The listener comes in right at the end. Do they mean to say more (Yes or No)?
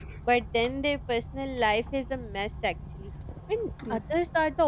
No